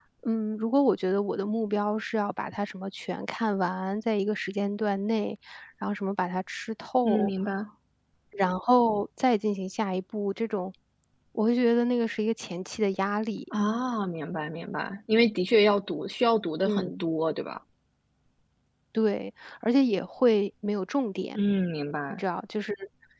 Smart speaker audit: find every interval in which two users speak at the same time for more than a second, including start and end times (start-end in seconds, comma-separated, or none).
none